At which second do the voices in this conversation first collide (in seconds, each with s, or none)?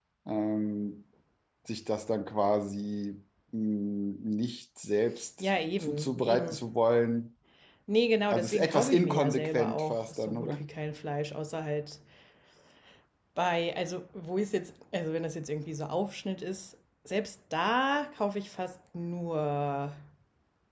5.4 s